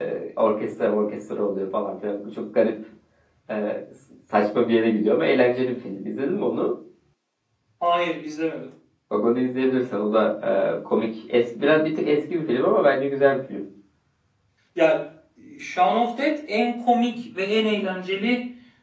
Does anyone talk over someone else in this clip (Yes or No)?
No